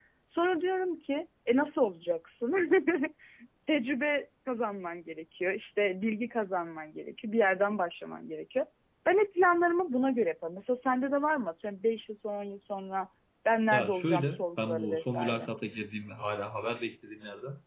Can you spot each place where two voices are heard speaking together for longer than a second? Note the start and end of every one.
13.7-15.5

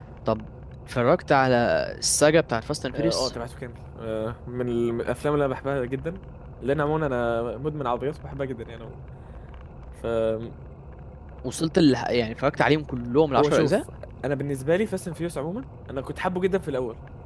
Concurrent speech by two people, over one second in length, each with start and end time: none

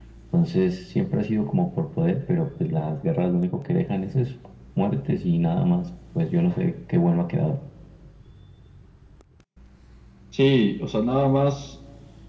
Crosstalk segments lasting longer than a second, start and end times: none

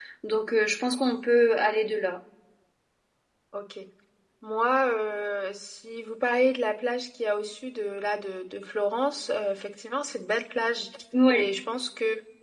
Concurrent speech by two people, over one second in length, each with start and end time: none

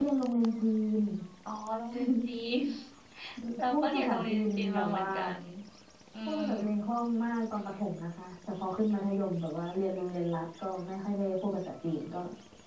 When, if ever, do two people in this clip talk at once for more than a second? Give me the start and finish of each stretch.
3.6-5.1

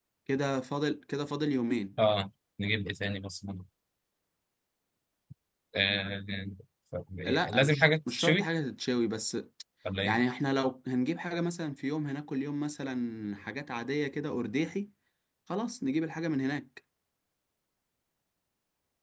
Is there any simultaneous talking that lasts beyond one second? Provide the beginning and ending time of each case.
7.2-8.5

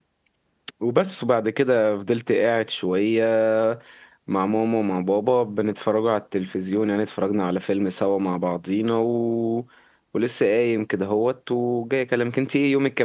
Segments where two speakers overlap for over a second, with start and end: none

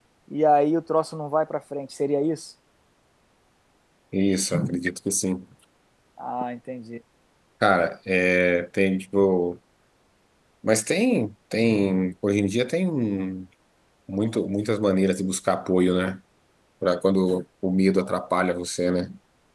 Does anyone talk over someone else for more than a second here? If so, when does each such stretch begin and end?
none

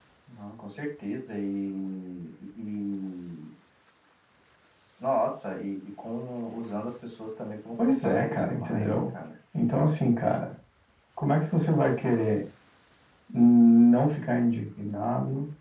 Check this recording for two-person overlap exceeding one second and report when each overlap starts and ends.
7.8-9.1

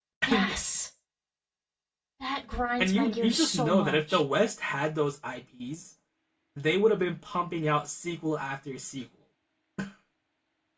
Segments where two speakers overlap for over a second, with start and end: 2.8-4.2

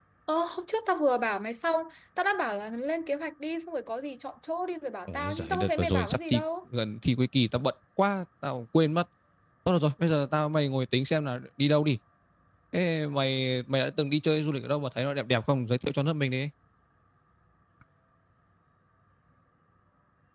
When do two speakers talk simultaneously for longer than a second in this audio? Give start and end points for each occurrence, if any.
5.1-6.4

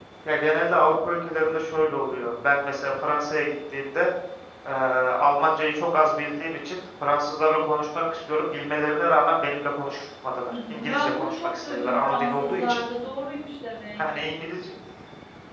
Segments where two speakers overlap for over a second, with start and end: 10.5-12.6

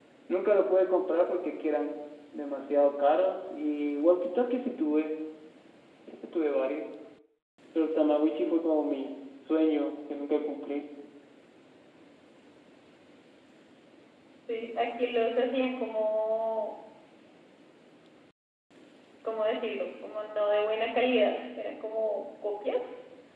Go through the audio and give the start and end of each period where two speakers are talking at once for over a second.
none

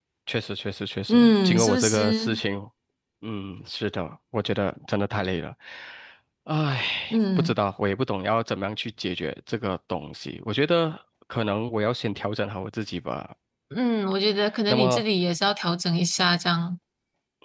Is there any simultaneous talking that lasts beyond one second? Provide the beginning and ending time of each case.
1.1-2.4

